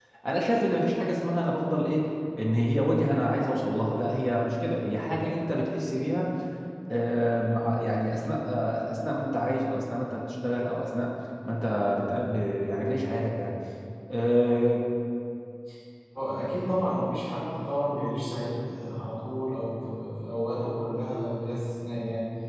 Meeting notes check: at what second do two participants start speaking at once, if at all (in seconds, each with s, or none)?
none